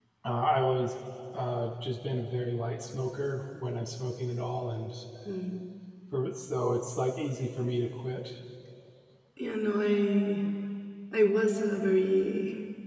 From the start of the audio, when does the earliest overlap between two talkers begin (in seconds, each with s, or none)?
none